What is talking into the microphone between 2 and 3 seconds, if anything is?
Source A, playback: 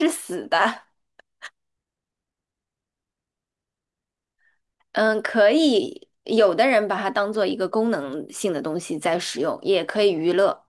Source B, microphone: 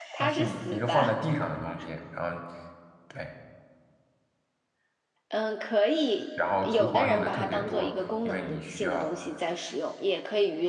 user only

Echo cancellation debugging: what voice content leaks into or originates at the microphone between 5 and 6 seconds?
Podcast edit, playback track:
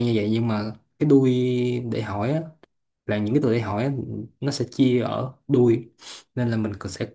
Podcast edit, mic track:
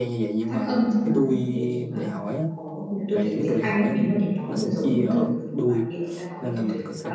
both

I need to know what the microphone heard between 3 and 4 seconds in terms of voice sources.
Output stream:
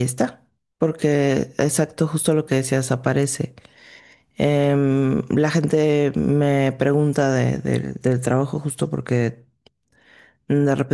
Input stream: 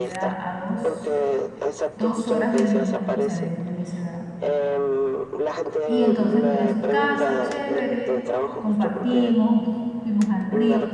both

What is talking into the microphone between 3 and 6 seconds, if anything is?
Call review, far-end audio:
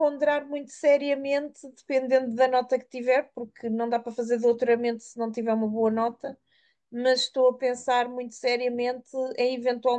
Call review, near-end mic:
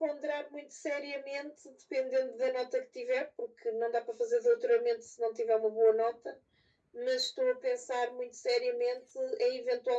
echo only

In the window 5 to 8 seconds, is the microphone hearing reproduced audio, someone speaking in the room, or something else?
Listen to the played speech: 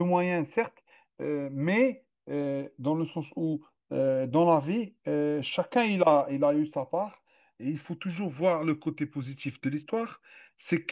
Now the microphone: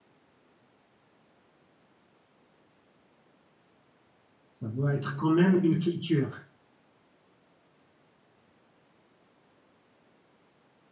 user only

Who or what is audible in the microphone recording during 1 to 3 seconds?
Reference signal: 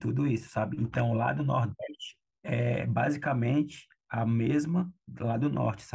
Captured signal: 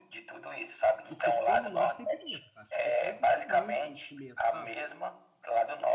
both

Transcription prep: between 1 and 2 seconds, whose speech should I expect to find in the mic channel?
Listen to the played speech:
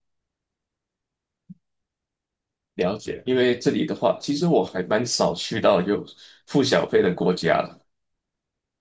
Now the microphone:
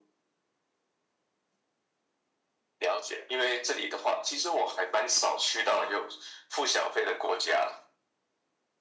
neither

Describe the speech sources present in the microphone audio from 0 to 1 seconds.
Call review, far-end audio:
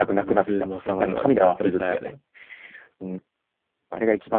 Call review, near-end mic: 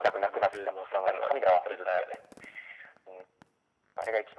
echo only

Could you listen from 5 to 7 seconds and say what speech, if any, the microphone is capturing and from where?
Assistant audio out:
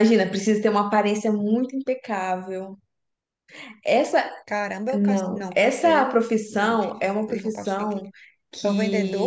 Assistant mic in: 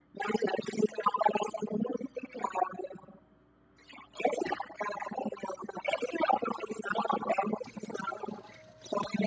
echo only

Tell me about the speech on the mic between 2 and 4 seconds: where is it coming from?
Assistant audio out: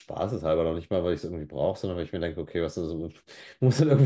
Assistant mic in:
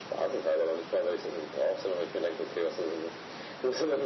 echo only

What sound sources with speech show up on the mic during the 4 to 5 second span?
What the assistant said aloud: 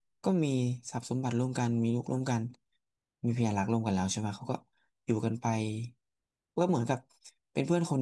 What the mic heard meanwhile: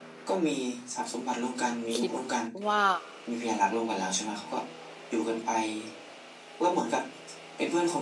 echo only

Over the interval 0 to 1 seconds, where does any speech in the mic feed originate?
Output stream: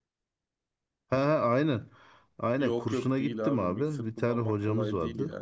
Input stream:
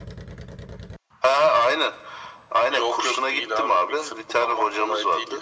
neither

